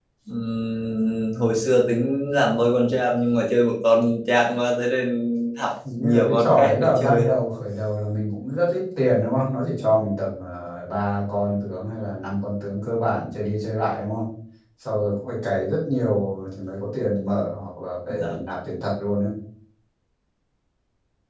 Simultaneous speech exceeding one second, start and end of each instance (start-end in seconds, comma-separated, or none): 6.0-7.3